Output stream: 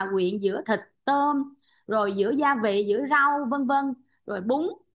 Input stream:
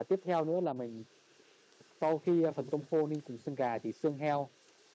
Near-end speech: present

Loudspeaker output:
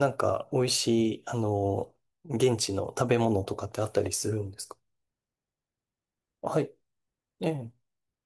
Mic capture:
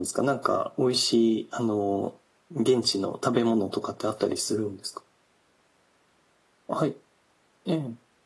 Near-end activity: none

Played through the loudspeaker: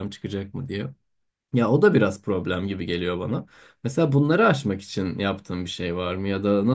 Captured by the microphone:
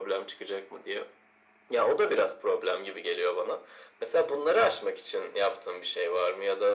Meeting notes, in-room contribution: none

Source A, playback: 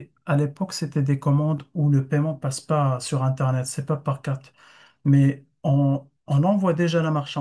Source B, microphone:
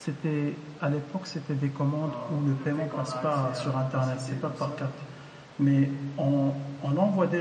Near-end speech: present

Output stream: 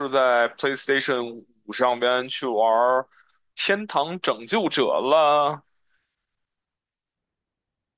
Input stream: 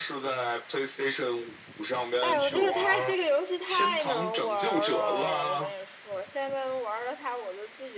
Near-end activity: present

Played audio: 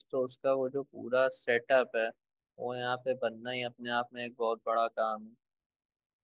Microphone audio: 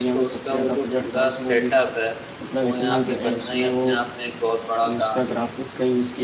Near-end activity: present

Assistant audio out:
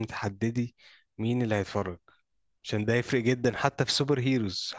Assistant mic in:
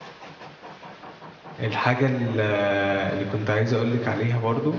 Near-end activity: present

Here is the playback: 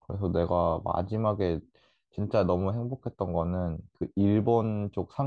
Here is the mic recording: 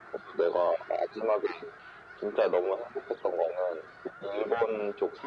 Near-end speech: none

